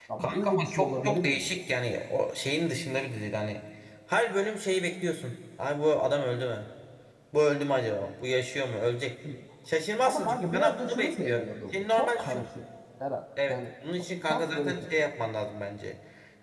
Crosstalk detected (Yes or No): Yes